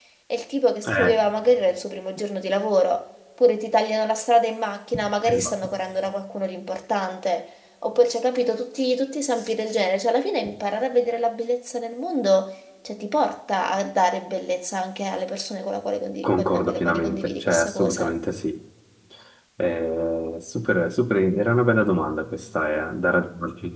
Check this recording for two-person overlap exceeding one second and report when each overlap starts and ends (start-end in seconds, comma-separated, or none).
16.2-18.1